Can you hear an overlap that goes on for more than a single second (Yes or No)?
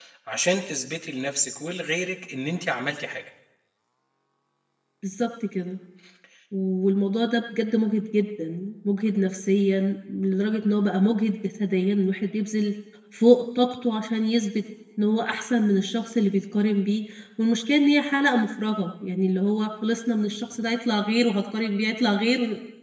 No